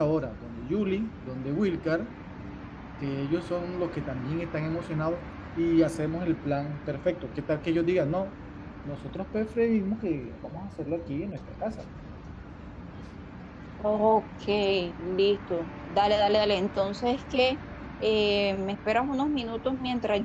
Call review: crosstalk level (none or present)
none